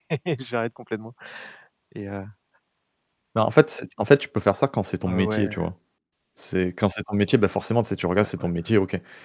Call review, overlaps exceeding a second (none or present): none